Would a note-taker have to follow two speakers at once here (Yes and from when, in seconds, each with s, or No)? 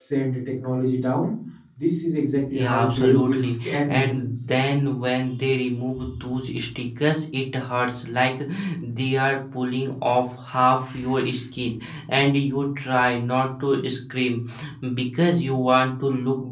Yes, from 2.5 s